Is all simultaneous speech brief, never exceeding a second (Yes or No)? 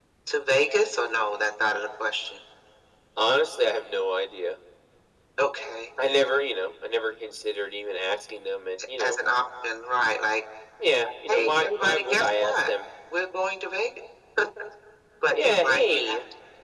No